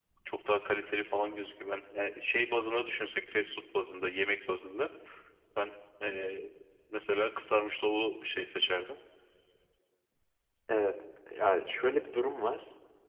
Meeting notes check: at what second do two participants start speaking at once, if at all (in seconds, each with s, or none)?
none